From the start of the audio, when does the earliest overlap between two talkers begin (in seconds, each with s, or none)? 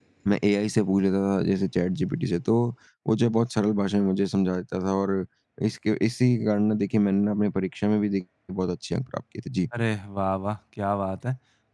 none